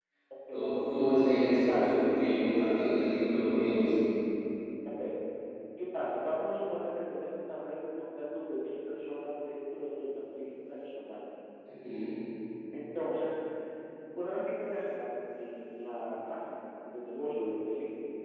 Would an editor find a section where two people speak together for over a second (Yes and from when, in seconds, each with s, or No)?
No